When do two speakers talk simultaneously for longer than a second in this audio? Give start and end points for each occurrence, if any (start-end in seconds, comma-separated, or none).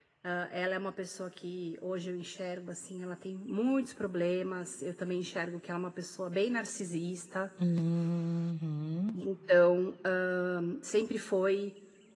none